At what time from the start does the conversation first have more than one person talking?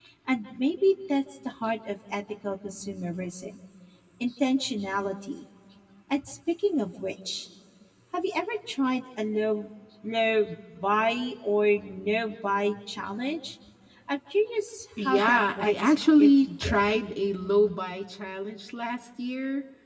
15.0 s

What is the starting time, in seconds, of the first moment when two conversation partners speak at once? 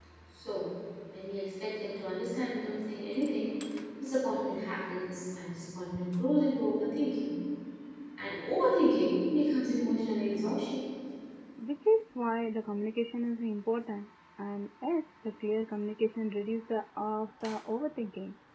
none

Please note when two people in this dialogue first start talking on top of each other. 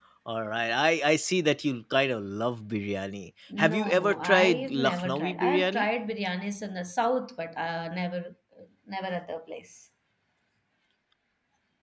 3.5 s

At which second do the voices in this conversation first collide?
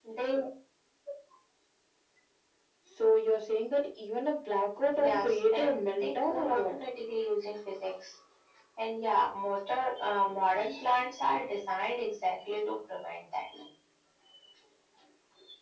4.8 s

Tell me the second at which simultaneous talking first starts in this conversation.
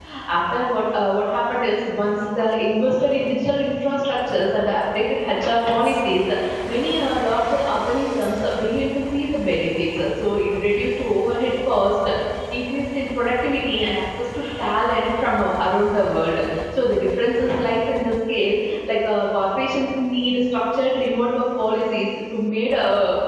none

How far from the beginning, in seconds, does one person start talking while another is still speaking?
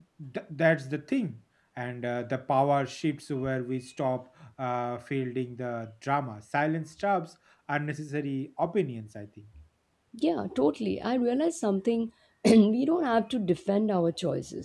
none

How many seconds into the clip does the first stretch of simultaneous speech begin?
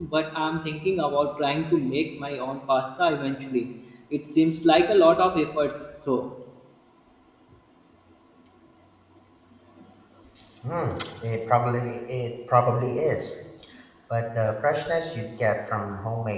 none

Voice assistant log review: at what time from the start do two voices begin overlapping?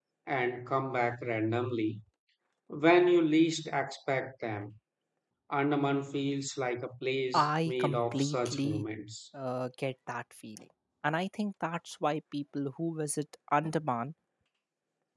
7.3 s

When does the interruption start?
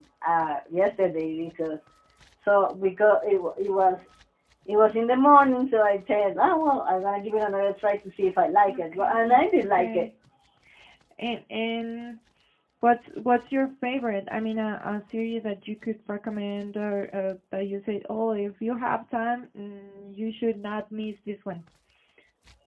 8.7 s

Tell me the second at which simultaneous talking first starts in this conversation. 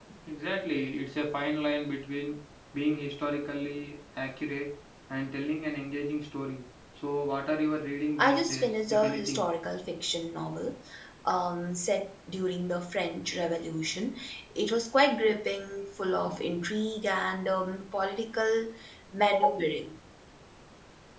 8.2 s

